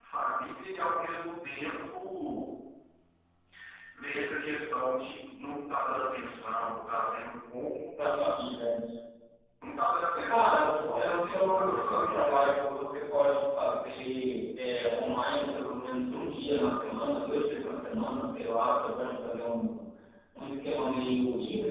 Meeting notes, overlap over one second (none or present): present